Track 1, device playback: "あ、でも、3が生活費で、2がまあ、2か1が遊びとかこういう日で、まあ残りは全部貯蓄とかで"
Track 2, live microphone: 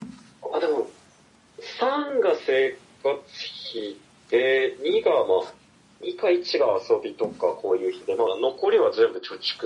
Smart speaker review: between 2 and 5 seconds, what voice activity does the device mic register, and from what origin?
echo only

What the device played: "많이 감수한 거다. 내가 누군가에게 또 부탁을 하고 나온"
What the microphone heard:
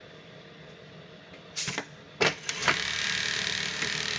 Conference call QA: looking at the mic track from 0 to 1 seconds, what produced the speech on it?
neither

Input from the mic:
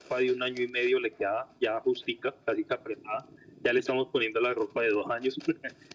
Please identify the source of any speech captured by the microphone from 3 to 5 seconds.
echo only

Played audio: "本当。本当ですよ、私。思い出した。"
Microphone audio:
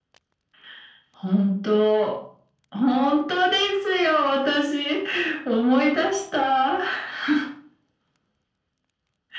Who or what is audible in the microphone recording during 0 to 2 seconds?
echo only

